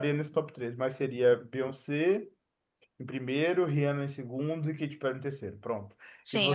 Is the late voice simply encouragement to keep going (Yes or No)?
No